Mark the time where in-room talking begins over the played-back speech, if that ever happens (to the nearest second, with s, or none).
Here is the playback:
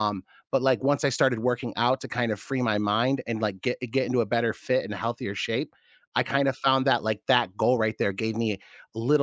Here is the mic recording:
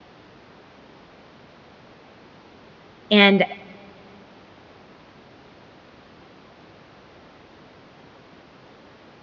3 s